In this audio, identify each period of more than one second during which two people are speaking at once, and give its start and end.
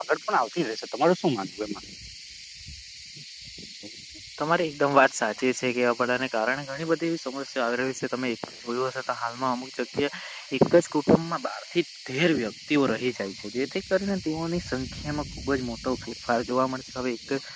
none

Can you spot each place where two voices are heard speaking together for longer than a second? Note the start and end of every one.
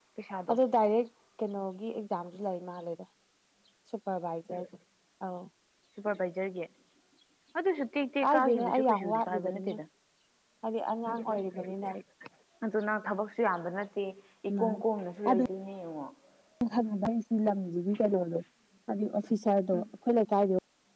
8.2-9.8

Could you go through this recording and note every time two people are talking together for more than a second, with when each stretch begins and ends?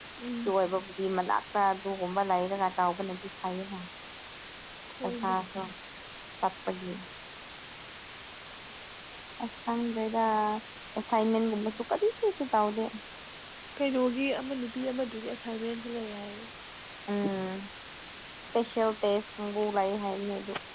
none

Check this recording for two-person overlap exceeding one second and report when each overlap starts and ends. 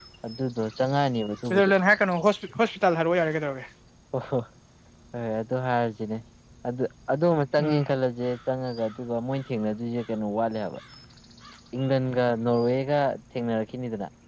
none

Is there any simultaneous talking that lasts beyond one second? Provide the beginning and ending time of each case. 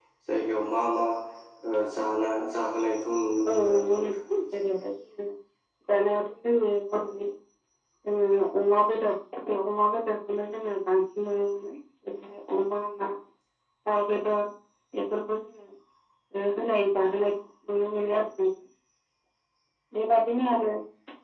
3.5-4.8

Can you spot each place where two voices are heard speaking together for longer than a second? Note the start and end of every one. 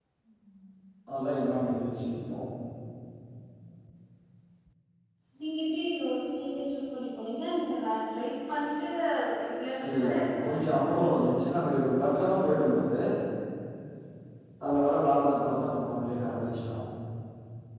9.8-11.3

